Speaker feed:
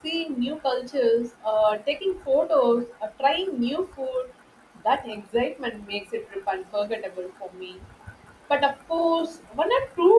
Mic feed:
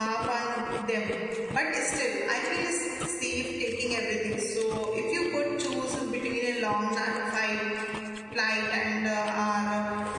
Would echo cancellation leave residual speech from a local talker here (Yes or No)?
Yes